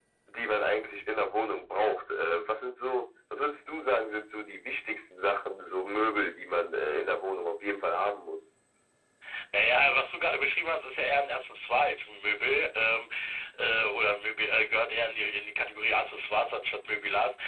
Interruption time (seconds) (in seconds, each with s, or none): none